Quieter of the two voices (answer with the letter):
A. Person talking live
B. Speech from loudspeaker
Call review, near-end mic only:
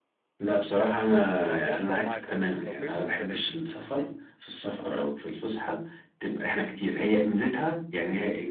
A